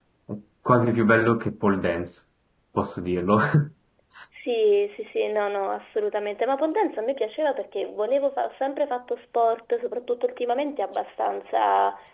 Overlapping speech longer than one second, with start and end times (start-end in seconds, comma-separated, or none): none